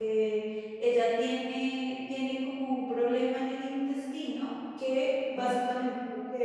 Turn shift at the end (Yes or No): No